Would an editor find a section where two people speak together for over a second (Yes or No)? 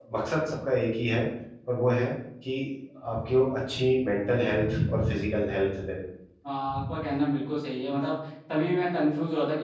No